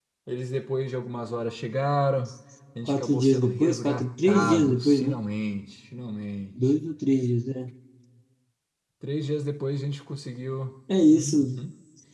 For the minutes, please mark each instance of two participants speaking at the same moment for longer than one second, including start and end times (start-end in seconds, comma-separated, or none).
2.9-5.2